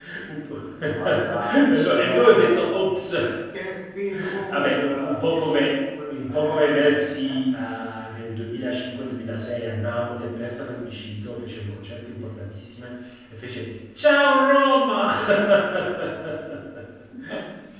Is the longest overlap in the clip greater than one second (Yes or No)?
Yes